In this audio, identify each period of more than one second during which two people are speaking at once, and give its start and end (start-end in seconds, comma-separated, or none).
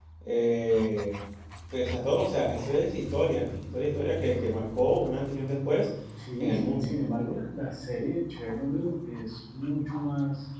none